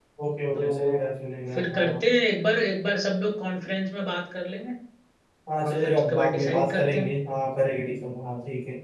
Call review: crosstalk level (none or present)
present